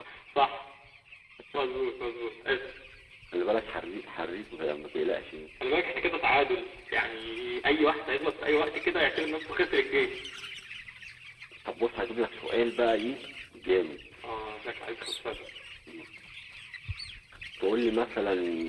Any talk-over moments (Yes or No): No